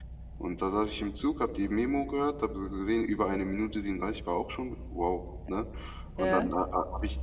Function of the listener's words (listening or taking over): listening